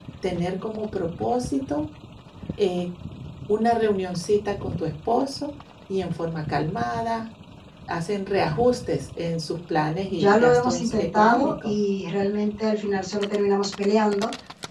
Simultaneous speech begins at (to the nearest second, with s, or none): 10 s